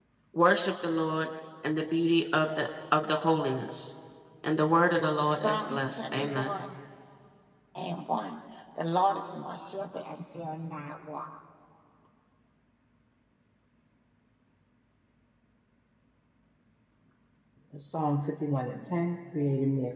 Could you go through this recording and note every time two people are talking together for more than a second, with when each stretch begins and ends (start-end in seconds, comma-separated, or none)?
5.3-6.5